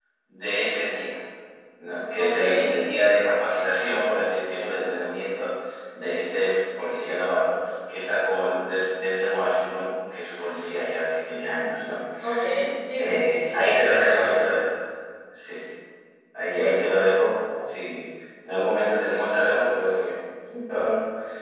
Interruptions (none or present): present